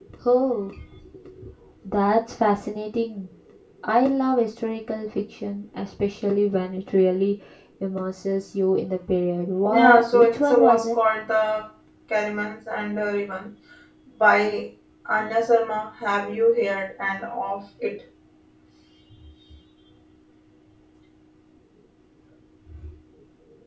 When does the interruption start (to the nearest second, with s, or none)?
10 s